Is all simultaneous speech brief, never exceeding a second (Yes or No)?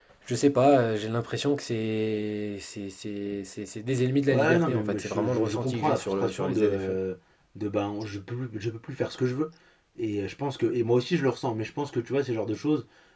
No